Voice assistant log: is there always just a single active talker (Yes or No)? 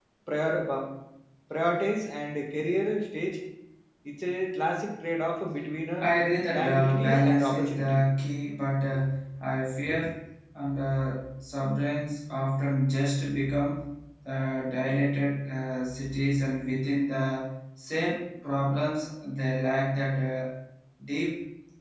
No